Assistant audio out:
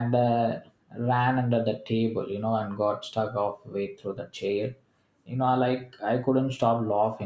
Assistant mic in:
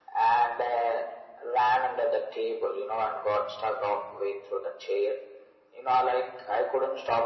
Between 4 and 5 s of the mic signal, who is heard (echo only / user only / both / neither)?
echo only